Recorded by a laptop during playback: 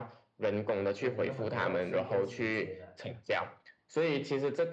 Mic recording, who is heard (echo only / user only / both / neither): both